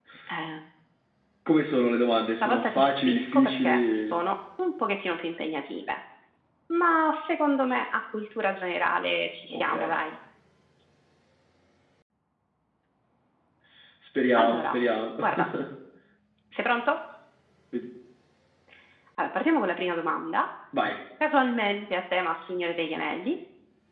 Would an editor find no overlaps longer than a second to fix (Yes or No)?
No